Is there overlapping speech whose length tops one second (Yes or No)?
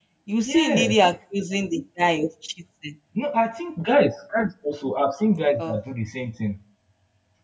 No